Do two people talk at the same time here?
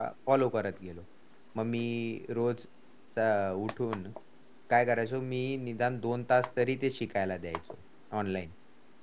No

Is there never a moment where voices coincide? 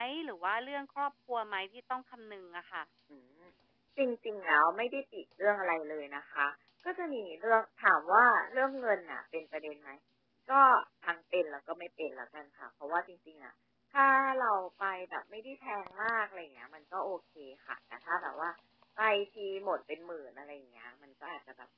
Yes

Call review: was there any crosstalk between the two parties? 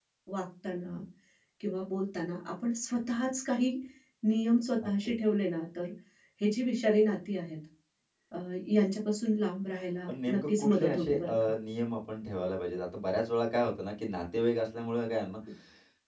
Yes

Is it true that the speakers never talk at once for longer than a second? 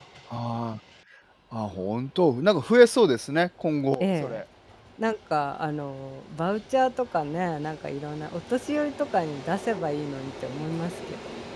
Yes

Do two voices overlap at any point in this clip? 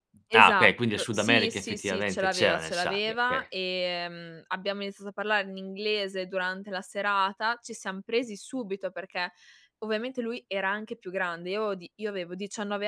Yes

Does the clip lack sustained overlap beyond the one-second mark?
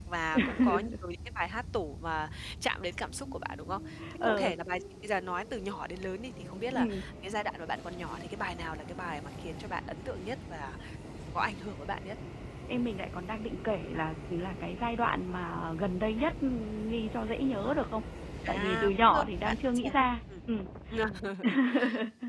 No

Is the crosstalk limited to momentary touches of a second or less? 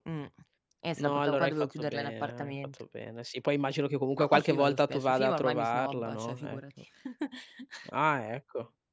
No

